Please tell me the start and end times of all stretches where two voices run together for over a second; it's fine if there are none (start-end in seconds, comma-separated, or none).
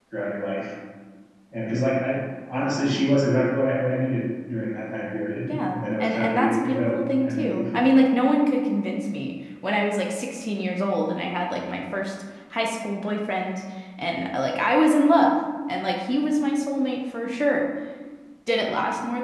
5.5-7.7